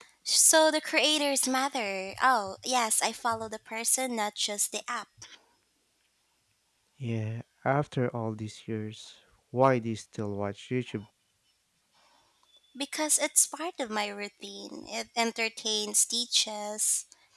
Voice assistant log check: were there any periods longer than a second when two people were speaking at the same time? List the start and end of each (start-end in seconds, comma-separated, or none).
none